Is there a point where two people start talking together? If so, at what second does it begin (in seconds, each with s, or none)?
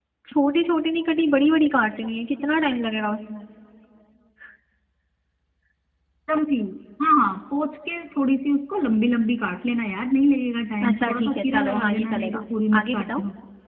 10.9 s